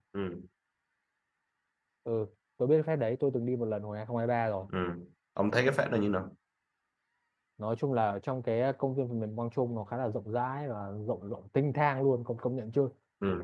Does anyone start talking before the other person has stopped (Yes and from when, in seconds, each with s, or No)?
No